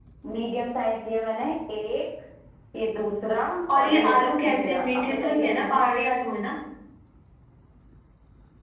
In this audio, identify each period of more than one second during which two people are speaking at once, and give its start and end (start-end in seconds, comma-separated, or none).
3.8-5.8